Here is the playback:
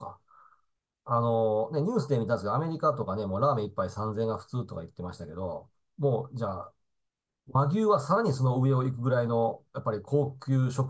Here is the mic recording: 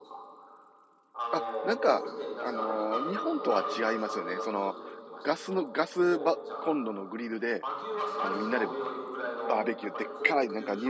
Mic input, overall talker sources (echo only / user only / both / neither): both